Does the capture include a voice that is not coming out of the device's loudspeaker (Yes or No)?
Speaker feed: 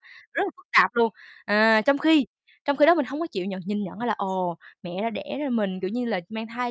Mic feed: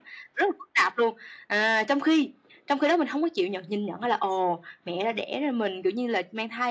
No